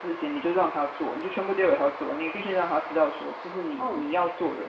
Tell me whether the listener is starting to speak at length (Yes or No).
No